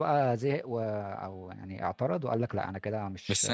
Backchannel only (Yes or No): No